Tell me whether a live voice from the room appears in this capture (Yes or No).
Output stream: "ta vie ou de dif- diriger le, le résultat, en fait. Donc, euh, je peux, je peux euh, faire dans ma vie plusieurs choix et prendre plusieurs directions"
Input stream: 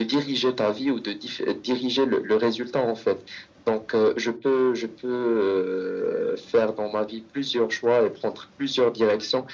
No